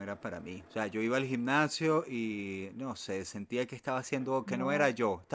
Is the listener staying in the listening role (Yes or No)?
Yes